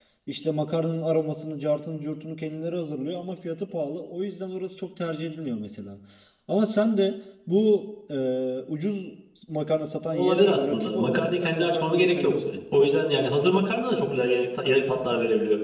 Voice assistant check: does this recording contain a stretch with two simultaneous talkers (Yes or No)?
Yes